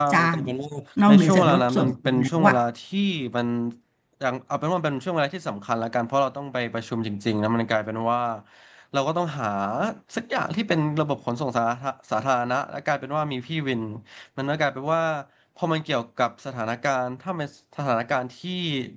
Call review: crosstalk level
present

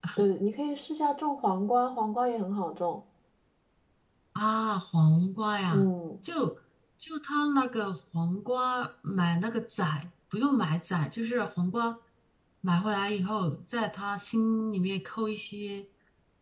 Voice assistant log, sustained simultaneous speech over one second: none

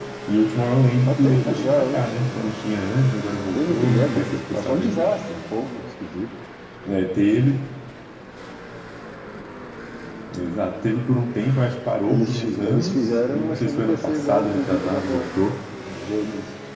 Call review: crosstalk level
present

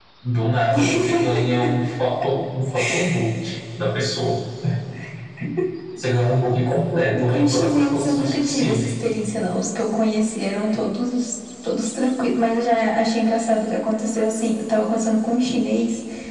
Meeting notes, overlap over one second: present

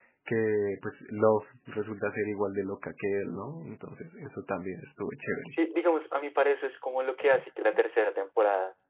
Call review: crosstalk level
none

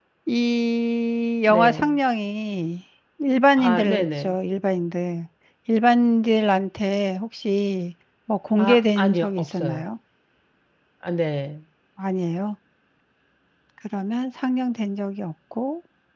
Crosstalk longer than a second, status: present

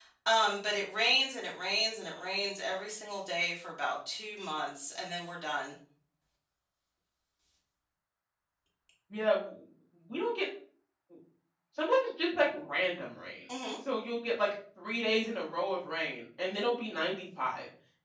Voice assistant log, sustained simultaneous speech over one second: none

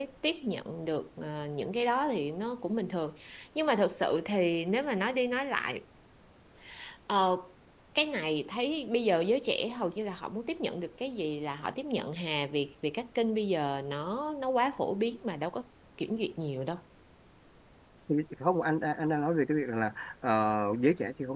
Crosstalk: none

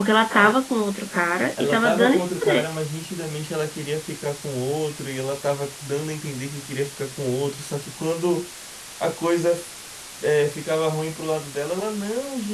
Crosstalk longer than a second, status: present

